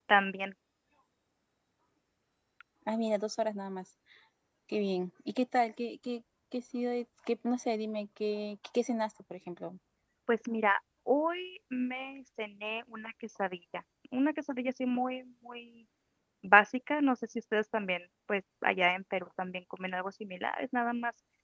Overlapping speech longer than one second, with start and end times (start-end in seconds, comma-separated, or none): none